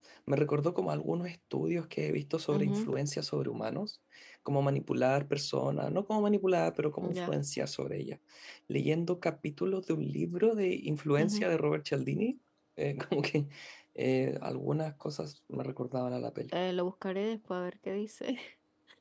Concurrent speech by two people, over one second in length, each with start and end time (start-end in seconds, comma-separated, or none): none